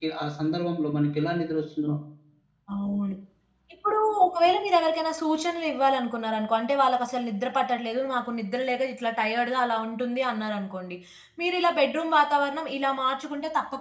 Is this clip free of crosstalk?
Yes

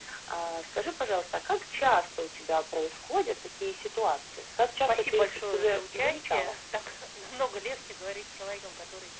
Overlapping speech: Yes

